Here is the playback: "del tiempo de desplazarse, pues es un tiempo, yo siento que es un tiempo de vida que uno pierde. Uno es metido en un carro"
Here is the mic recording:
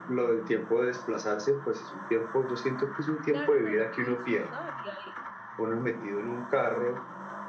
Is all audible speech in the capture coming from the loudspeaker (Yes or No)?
No